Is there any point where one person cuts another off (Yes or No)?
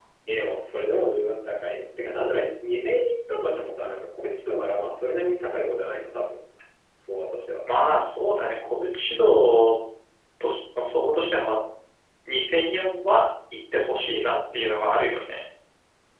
No